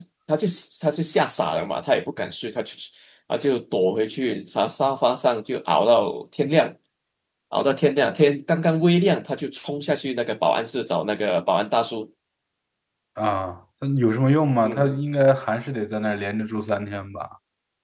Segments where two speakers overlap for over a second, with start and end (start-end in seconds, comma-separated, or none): none